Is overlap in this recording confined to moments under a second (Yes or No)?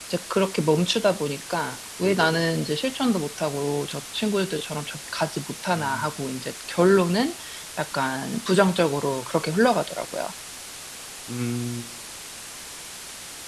Yes